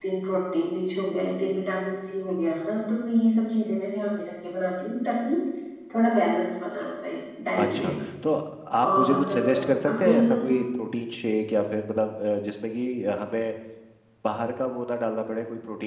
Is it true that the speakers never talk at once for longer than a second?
No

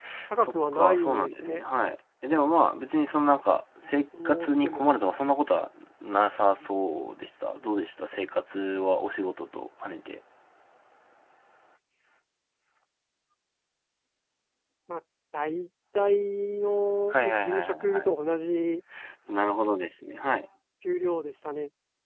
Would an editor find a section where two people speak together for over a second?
Yes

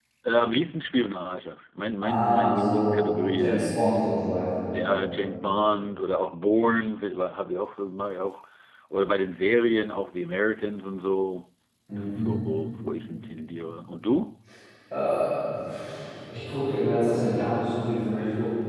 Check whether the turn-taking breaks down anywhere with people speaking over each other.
Yes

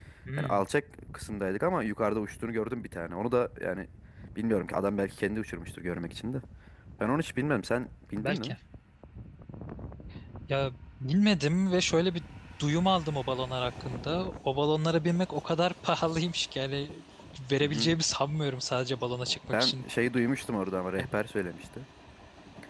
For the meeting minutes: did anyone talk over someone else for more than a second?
No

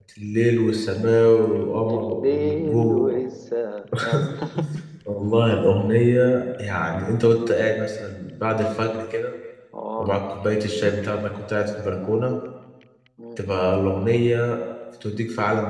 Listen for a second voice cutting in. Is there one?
Yes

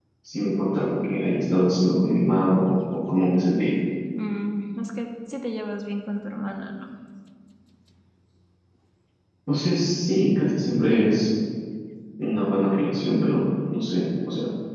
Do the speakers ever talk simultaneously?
No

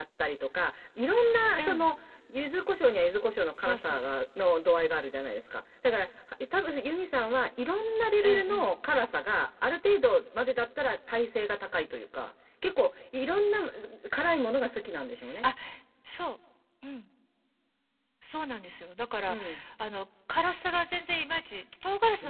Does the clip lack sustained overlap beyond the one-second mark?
Yes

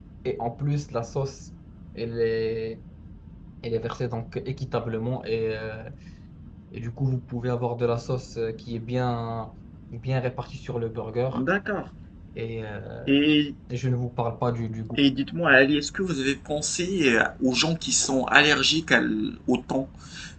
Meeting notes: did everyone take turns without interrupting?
Yes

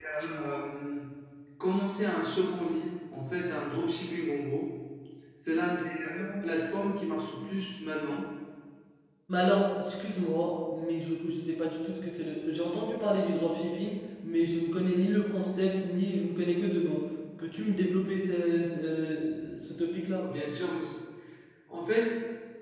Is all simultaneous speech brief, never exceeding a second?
Yes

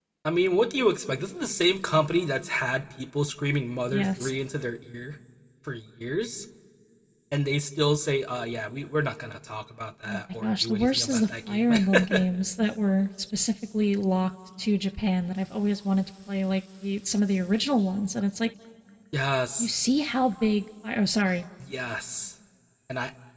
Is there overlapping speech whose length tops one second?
Yes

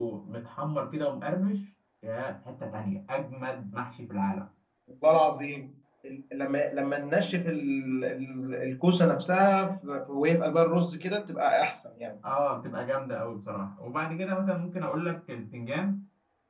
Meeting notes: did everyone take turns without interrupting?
Yes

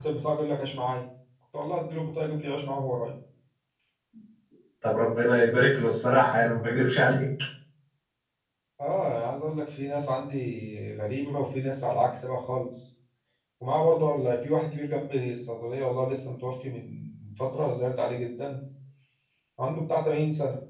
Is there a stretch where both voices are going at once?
No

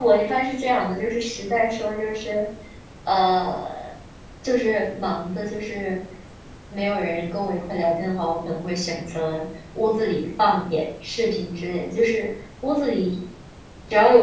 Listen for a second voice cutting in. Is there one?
No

